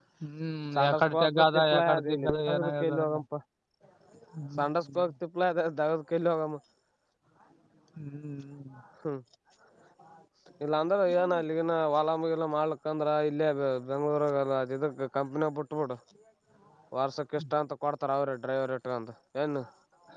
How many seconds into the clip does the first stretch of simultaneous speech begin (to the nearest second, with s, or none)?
1 s